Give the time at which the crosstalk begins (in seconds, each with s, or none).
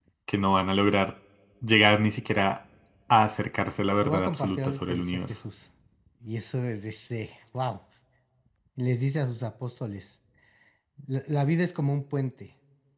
4.0 s